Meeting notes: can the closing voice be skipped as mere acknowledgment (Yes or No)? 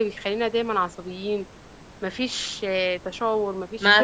No